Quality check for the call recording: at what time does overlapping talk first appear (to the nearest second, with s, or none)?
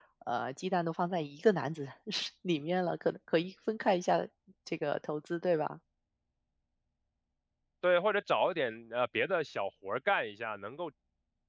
none